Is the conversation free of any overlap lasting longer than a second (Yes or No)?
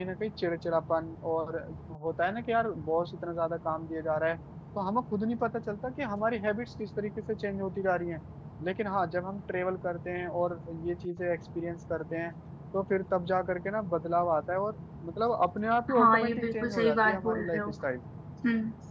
No